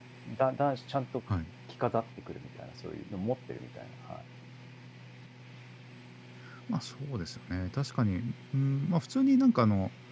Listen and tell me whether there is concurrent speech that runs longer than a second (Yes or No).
No